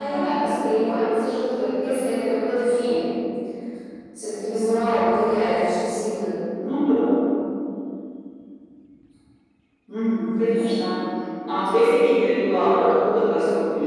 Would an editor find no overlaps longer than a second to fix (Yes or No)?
Yes